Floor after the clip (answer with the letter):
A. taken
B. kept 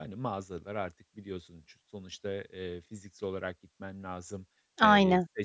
B